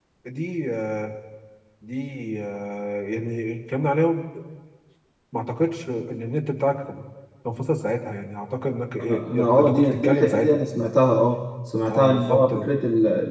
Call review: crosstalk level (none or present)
present